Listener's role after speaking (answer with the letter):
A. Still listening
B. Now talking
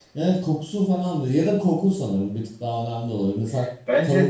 A